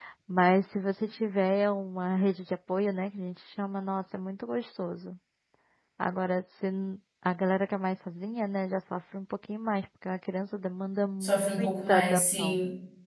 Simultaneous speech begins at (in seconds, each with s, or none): 11.2 s